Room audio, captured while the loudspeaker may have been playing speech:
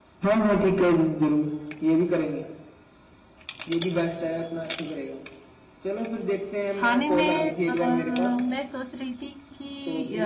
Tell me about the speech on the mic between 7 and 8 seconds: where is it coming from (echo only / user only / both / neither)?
both